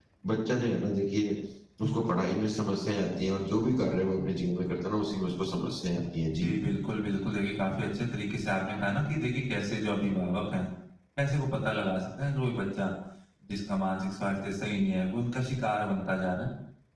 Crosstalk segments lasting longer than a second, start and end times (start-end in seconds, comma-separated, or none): none